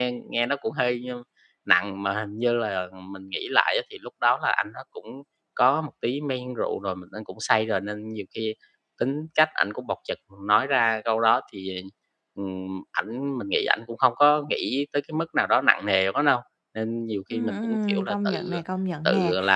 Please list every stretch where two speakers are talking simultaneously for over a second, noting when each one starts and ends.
17.3-18.6

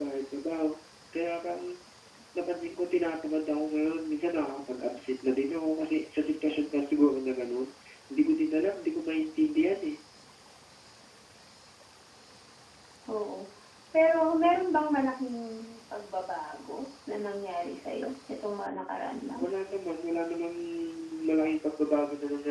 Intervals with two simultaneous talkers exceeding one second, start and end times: none

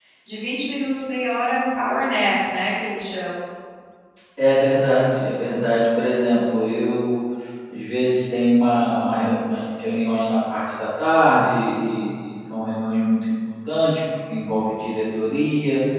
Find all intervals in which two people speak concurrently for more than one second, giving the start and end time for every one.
none

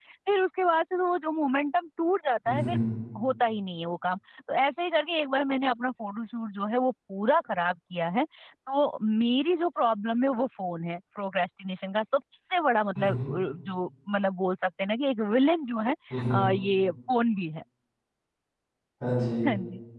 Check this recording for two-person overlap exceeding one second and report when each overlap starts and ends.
none

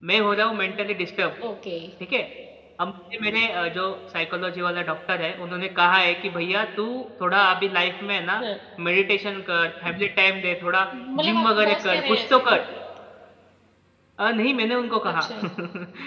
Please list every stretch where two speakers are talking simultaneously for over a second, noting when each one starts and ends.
11.2-12.5

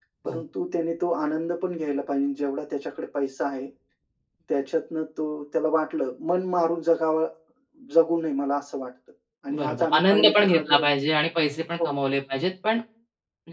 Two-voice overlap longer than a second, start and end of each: 9.6-10.8

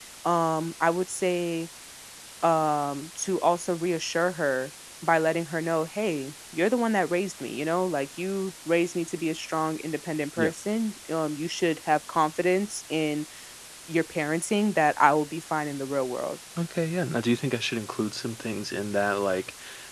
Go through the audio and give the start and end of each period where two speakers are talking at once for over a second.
none

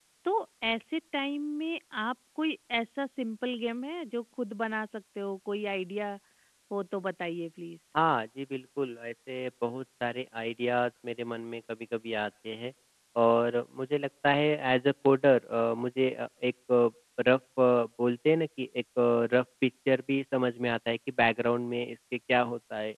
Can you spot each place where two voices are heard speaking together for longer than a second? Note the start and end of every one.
none

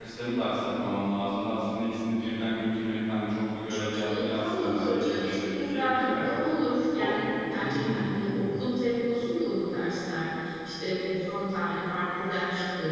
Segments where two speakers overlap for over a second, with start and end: 3.7-6.2

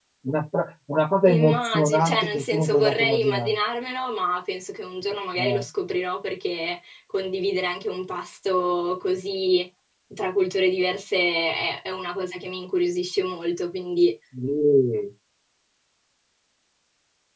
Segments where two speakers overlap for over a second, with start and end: 1.3-3.6

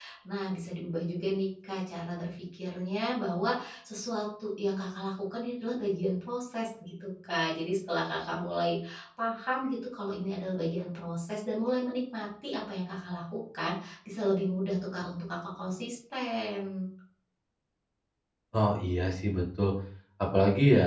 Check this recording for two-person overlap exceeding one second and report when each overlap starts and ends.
none

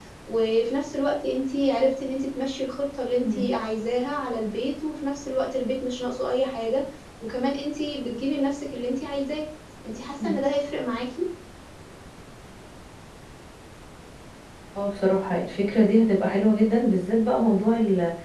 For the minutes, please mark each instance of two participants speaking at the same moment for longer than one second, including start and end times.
none

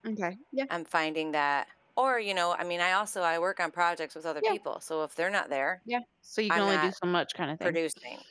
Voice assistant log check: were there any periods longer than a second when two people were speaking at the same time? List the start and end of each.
none

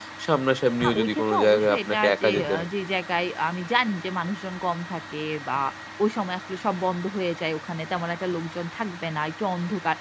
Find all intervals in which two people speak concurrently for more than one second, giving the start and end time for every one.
0.9-2.7

